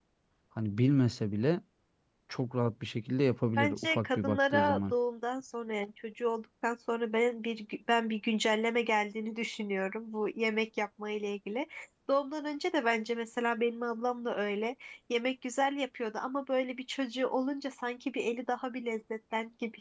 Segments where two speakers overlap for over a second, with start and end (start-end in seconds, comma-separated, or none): 3.6-4.9